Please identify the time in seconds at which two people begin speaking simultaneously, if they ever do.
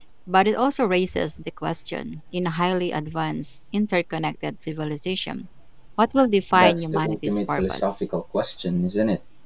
6.5 s

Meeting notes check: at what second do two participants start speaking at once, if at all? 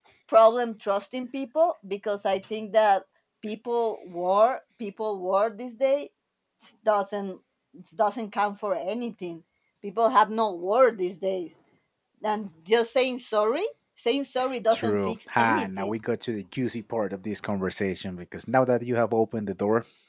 14.7 s

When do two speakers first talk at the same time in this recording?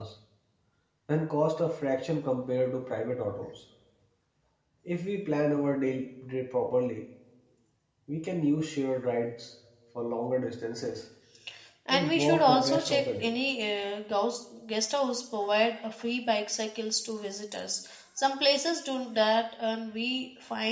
11.9 s

